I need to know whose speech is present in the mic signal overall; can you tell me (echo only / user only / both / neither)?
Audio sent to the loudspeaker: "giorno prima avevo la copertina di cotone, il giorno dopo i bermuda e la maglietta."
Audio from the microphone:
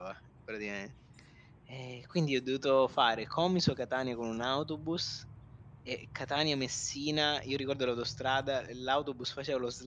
user only